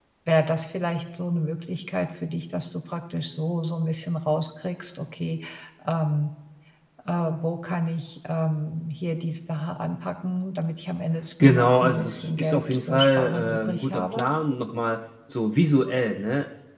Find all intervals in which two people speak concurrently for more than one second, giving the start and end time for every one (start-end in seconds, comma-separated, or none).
11.4-14.3